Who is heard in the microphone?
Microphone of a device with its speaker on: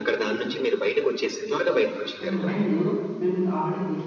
both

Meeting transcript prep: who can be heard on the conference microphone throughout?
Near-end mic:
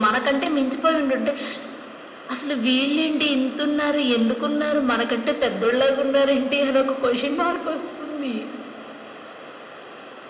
echo only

